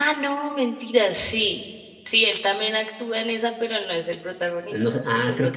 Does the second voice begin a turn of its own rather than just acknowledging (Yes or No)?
Yes